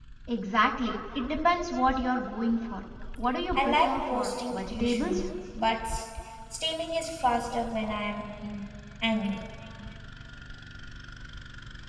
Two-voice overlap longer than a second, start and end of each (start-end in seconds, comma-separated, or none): 3.5-5.2